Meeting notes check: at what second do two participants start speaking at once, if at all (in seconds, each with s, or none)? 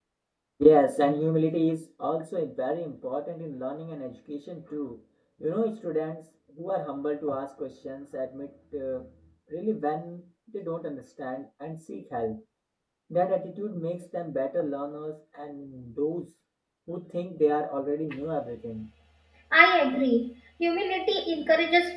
none